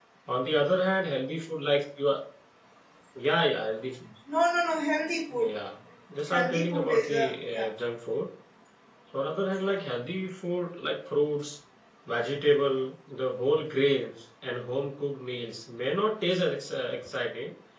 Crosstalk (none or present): present